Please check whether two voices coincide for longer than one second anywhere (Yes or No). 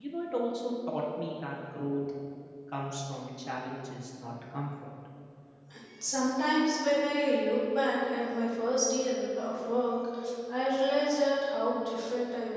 No